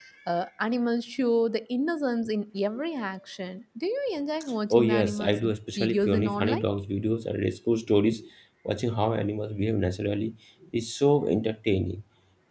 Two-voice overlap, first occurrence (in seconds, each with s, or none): 4.7 s